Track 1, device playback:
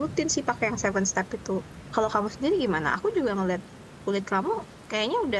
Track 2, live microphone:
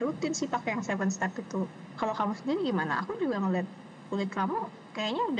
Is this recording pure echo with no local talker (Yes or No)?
Yes